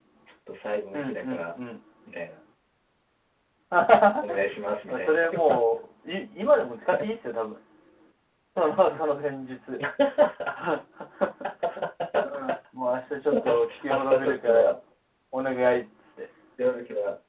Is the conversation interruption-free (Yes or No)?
No